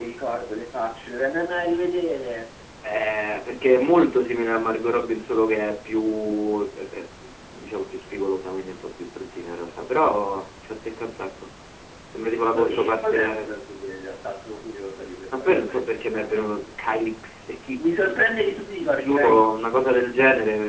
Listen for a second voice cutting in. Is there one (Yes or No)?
Yes